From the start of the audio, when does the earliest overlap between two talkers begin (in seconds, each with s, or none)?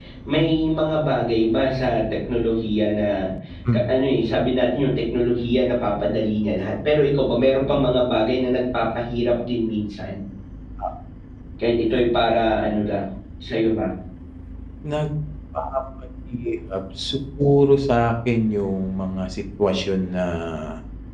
none